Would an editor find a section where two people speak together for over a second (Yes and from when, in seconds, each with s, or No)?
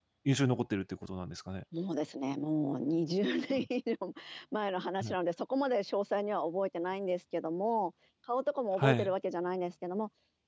No